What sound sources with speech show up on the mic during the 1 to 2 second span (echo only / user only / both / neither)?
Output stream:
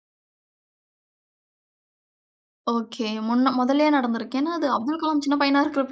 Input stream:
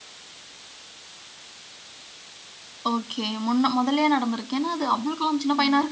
neither